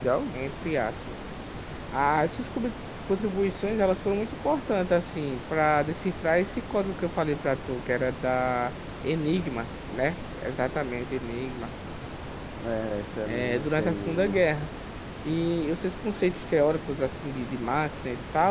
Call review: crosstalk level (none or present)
present